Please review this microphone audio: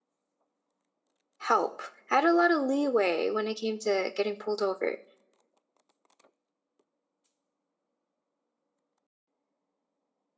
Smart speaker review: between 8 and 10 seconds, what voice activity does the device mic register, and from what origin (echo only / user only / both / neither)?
neither